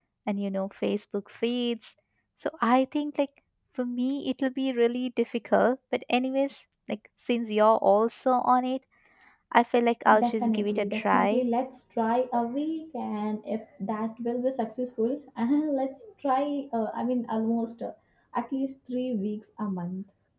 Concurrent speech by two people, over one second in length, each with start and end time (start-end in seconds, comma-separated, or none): 10.2-11.4